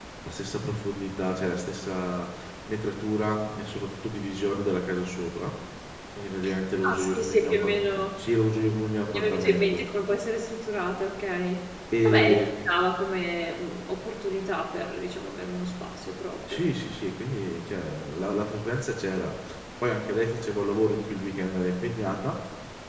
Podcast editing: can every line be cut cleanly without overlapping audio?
No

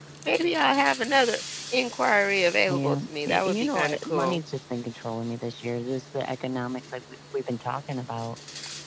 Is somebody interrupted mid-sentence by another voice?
Yes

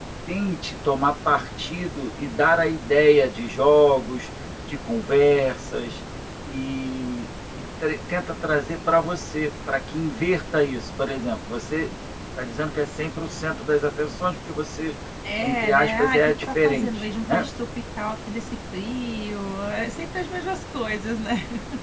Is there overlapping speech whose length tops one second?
Yes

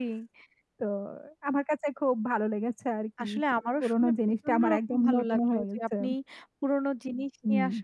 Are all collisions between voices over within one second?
No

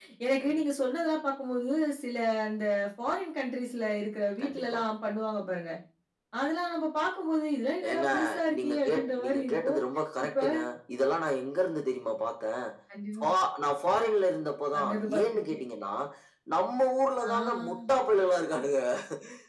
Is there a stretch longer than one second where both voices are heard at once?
Yes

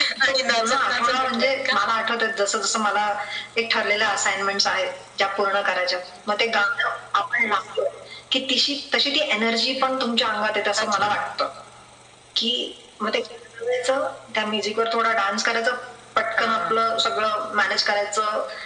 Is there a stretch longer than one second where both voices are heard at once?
Yes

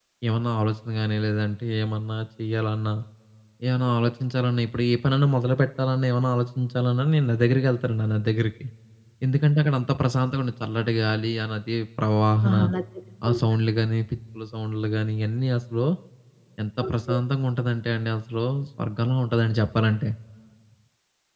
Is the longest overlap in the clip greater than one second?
No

